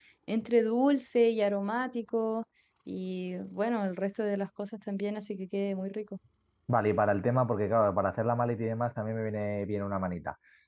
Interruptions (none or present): none